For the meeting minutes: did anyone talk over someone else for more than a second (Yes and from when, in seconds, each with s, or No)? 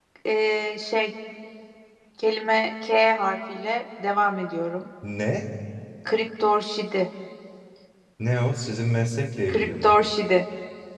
No